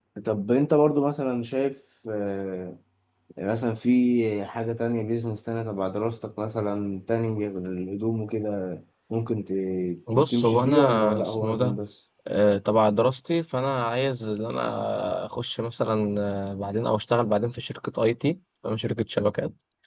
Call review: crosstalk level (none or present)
present